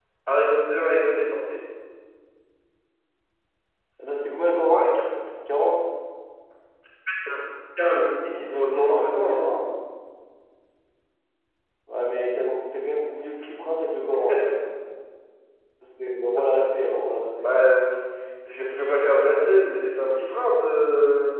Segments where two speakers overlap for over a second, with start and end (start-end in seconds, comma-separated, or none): 8.2-9.4